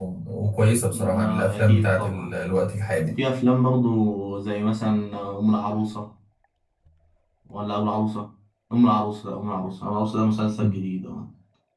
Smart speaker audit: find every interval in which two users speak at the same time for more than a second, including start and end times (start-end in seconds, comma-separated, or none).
0.9-2.3